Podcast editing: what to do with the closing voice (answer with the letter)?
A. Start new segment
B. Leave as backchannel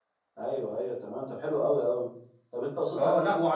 A